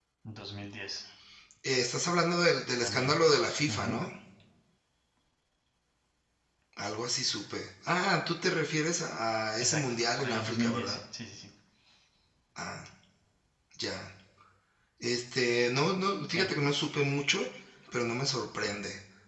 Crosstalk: present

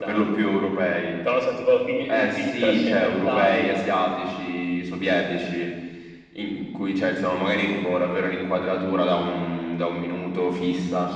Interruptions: present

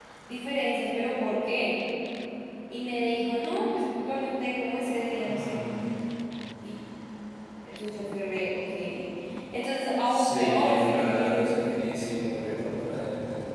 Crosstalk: present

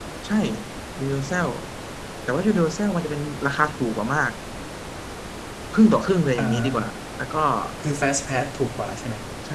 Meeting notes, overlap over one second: none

